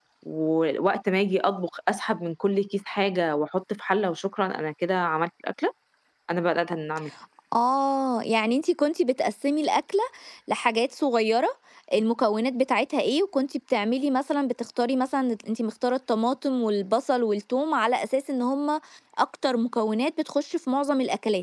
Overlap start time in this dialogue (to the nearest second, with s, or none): none